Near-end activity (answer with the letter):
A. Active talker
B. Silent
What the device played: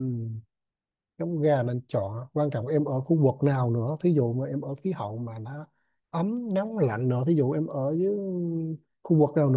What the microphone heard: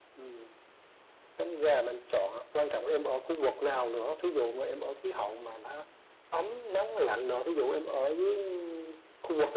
B